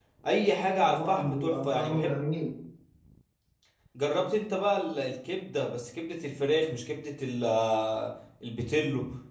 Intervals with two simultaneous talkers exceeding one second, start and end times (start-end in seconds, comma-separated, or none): 0.8-2.1